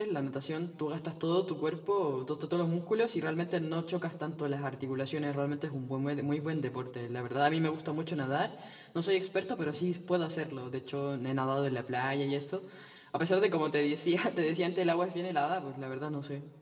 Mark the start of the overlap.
none

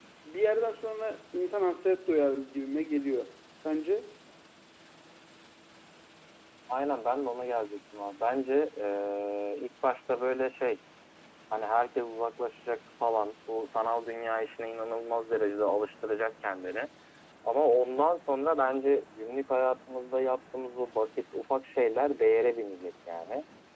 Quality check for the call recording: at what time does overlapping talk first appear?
none

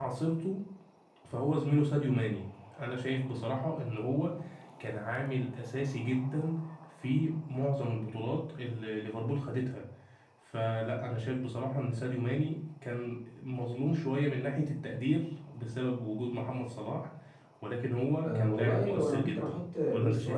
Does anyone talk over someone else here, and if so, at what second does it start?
18.2 s

